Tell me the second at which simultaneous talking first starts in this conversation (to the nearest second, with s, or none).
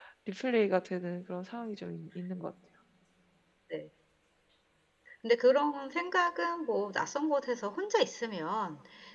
none